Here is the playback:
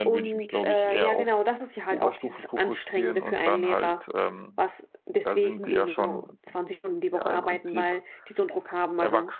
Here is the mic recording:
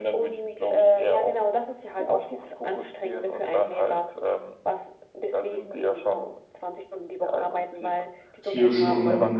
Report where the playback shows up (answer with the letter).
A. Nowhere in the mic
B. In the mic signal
B